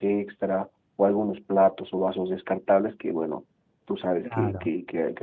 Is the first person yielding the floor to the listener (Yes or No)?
No